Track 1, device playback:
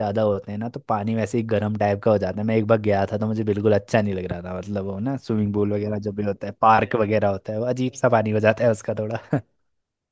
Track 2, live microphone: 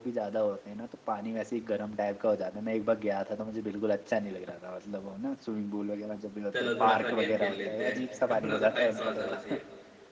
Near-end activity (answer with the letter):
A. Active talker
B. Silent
A